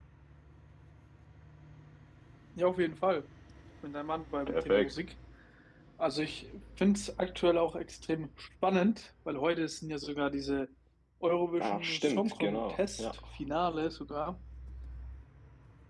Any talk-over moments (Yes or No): Yes